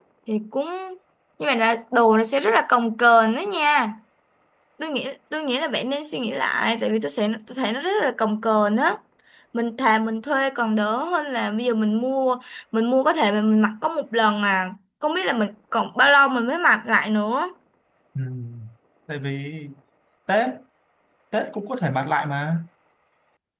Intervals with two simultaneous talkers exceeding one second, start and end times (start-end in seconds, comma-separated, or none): none